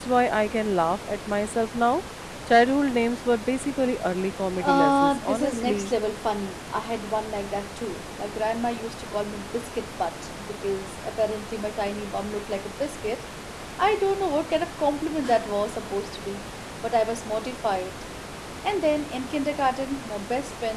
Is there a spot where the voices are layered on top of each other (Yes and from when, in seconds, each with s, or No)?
Yes, from 4.5 s